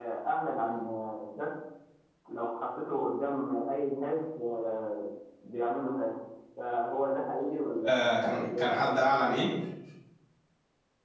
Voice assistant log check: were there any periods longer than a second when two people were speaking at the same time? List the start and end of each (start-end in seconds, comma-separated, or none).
7.8-9.2